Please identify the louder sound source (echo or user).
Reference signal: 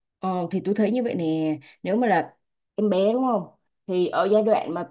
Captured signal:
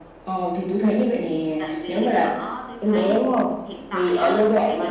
echo